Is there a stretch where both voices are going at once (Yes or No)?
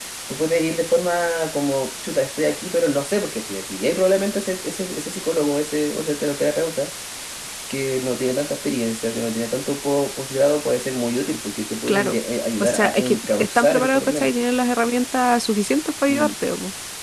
Yes